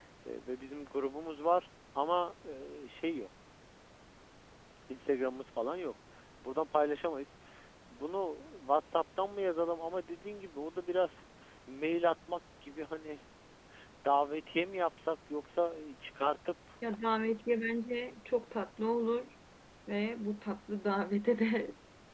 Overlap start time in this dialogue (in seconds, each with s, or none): none